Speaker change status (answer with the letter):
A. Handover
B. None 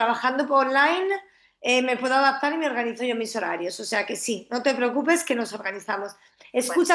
B